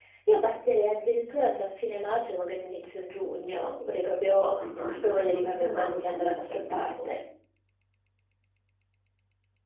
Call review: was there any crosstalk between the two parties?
Yes, from 4.2 s

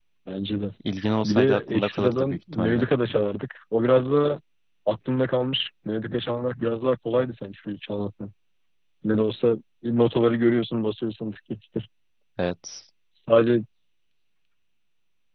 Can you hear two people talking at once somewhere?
Yes, from 1.2 s

